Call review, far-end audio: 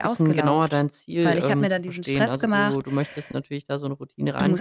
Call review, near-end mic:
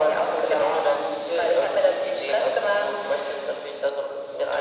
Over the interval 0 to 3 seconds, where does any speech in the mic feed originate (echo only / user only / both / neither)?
echo only